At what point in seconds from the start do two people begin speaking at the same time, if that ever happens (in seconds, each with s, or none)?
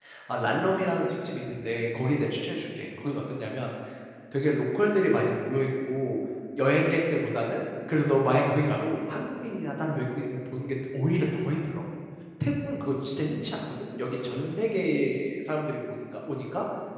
none